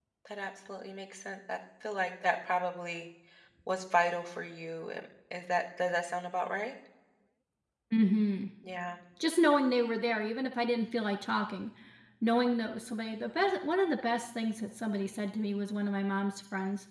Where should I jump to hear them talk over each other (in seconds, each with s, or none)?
none